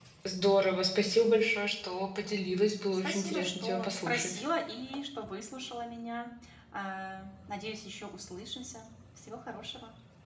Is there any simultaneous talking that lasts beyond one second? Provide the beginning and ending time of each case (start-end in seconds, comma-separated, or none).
2.9-4.4